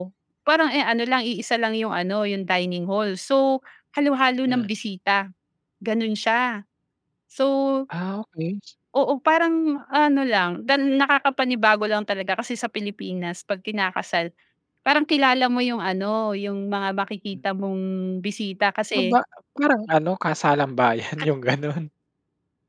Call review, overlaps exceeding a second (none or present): none